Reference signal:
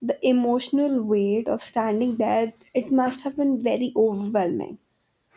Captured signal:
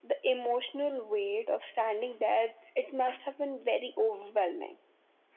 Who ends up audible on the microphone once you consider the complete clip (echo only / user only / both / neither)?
echo only